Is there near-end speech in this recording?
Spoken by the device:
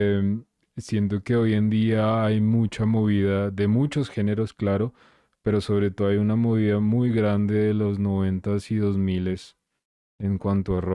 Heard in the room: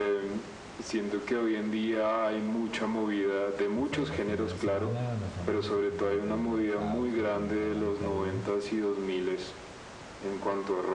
Yes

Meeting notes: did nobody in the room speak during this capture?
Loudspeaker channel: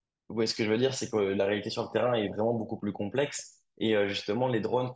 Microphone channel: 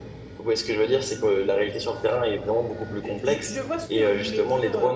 No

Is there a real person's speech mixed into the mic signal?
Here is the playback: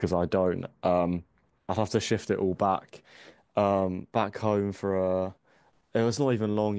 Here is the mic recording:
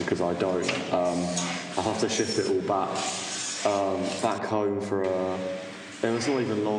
No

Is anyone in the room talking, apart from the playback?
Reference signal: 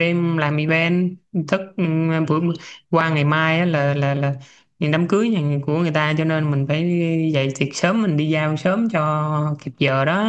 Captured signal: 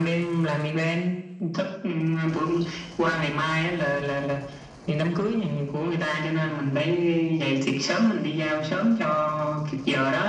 No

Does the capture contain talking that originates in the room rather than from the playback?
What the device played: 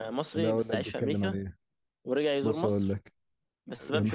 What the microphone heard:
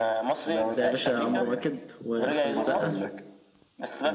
Yes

